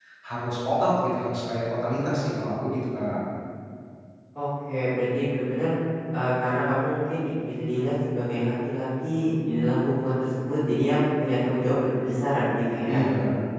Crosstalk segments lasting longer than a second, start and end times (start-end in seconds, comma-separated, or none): none